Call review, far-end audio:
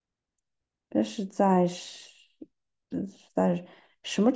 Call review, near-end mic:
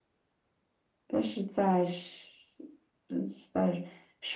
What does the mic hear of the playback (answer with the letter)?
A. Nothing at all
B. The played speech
B